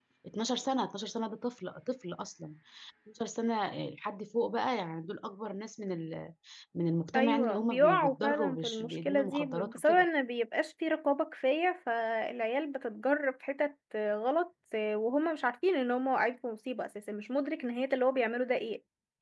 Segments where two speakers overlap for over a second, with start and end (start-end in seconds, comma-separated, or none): 7.1-10.0